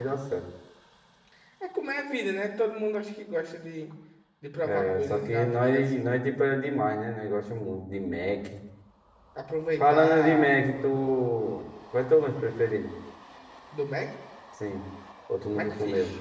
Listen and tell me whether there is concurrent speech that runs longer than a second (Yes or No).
Yes